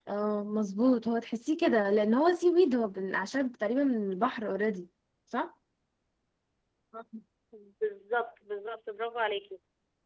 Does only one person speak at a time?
Yes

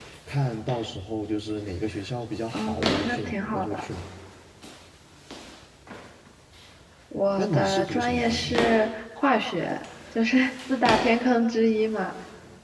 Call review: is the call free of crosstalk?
No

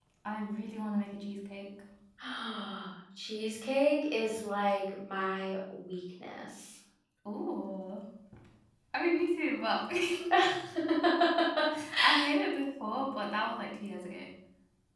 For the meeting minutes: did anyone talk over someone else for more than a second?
No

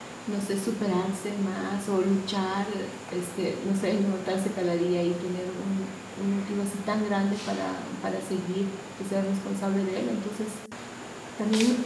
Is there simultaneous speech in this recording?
No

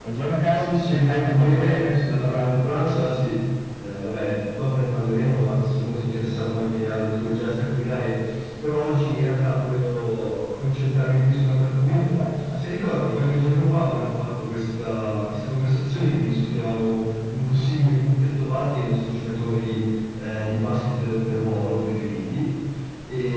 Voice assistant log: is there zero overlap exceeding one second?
No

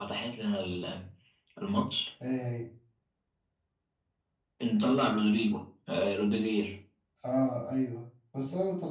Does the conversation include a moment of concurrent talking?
No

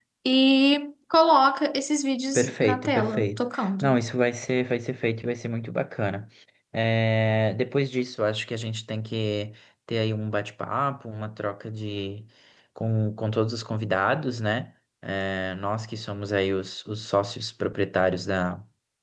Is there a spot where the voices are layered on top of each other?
Yes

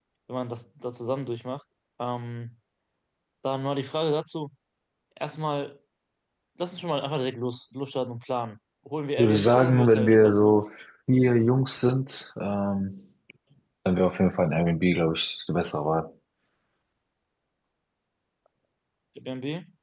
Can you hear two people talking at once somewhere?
Yes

